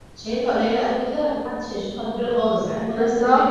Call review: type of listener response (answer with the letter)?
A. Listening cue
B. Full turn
A